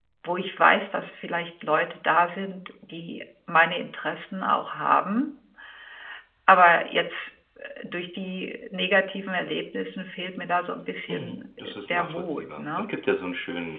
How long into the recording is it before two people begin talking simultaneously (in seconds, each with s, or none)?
11.1 s